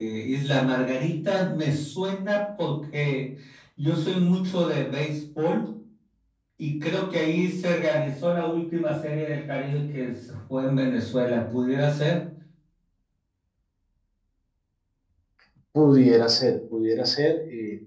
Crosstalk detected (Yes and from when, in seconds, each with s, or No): No